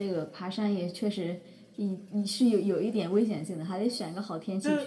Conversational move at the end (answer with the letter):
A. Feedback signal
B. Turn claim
B